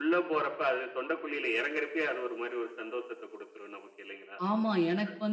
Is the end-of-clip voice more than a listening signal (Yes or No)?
Yes